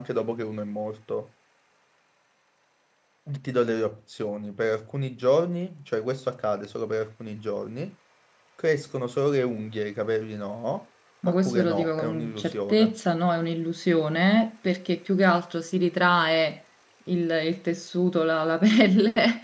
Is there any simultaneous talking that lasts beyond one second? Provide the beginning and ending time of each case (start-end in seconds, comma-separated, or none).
11.3-12.9